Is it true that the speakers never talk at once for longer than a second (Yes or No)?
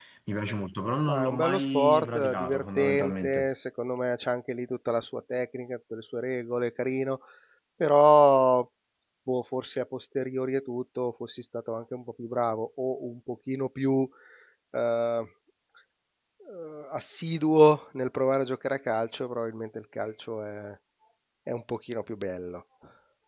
No